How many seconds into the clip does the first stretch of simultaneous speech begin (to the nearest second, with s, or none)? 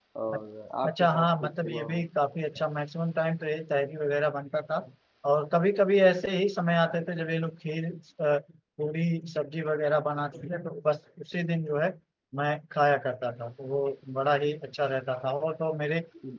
1 s